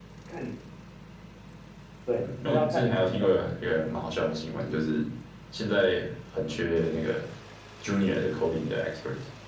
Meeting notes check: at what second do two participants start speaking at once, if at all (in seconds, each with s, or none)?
2.1 s